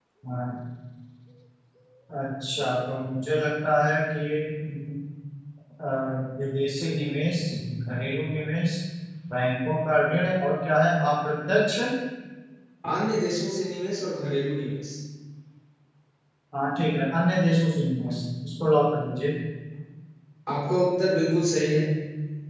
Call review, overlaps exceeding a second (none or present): none